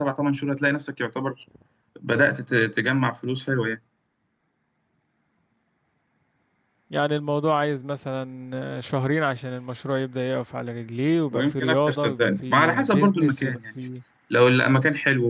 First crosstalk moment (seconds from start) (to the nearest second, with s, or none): 11 s